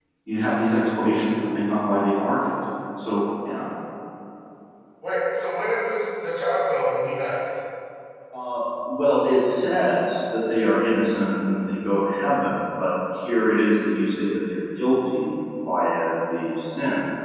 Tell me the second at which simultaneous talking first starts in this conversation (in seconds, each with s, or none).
none